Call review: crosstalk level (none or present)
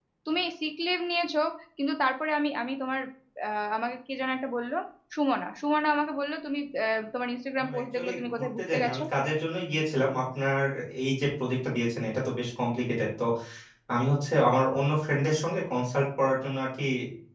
present